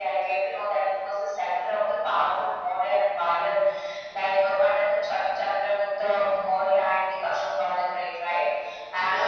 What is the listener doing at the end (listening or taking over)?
listening